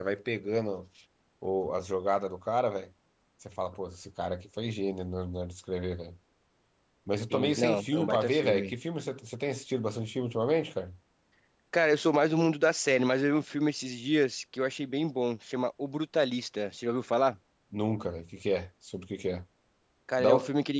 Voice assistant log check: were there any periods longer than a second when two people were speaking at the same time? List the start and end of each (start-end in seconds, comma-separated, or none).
7.3-8.7